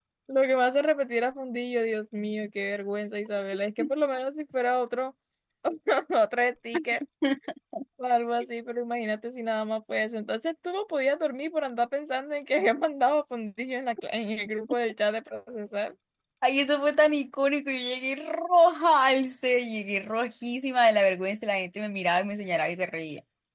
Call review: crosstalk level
none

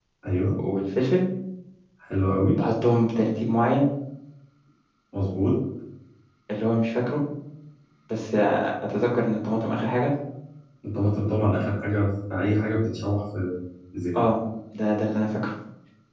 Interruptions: none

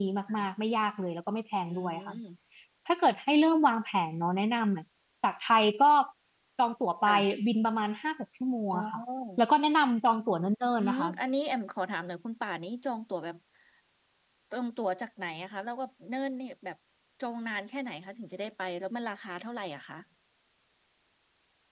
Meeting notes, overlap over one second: none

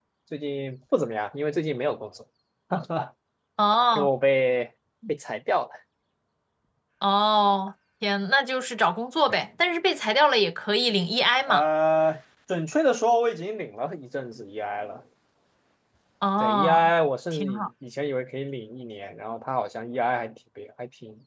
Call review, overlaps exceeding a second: none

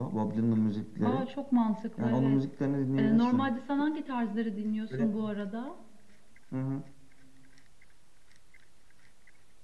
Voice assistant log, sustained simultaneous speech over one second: none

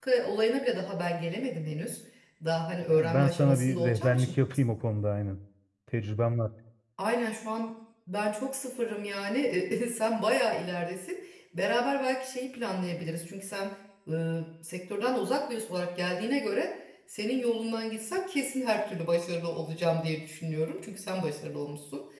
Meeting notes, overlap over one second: present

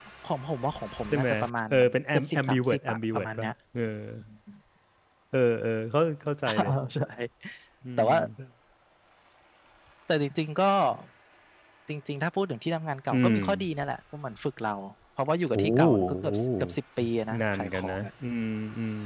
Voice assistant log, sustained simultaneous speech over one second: present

